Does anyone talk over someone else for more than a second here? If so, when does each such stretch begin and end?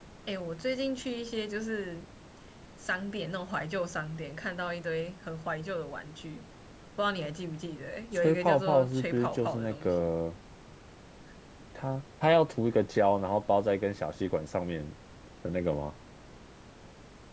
8.2-10.1

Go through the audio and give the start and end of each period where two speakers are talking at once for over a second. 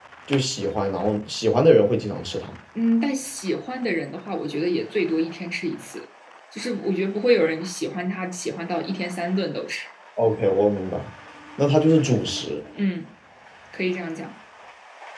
none

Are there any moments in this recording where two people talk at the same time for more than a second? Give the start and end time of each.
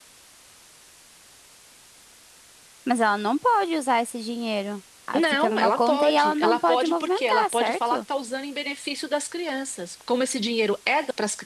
5.1-8.0

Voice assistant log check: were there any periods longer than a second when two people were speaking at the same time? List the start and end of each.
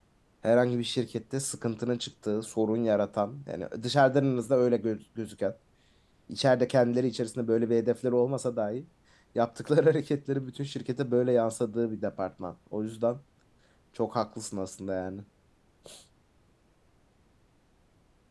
none

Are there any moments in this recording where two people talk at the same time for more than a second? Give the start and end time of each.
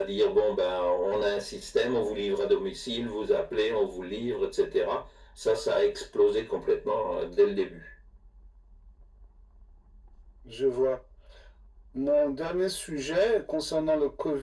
none

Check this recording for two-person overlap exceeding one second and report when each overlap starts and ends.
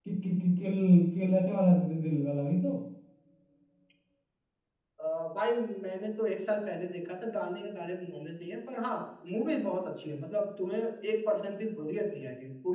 none

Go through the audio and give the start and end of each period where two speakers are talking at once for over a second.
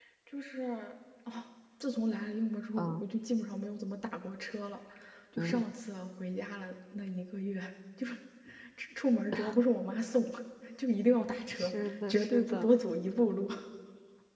11.5-12.7

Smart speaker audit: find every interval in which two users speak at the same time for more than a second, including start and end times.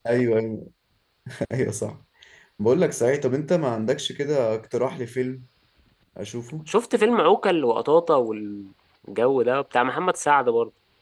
none

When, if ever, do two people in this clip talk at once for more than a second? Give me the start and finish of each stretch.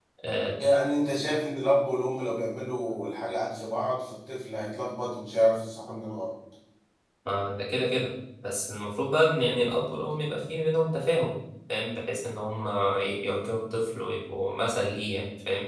none

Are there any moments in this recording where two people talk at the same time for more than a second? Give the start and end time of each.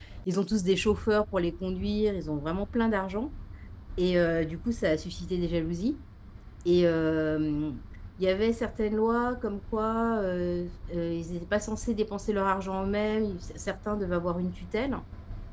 none

